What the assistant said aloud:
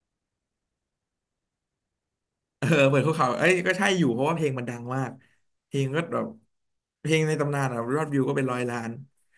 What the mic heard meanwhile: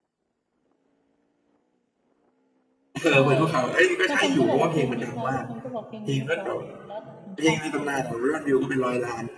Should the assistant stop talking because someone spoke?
Yes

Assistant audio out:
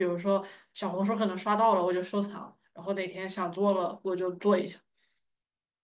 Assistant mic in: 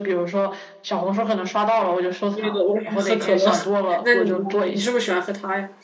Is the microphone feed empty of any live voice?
No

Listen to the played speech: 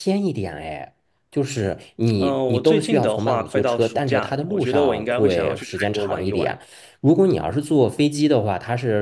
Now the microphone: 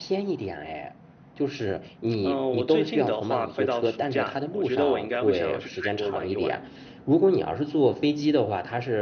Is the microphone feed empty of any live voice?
Yes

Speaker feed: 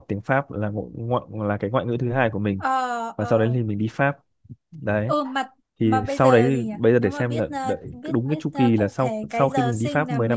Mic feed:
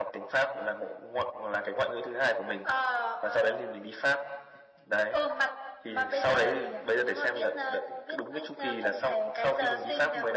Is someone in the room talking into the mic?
No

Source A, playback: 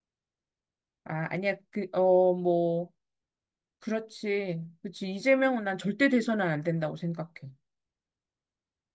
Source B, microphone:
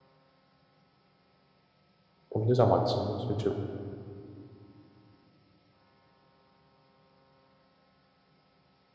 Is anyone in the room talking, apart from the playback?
Yes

